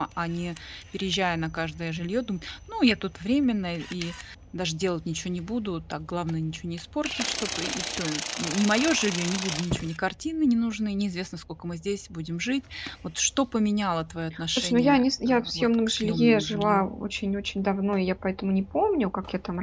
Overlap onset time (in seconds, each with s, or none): 14.5 s